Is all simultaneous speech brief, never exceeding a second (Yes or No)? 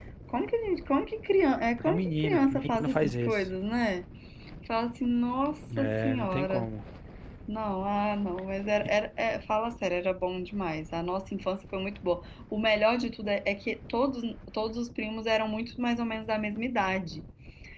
No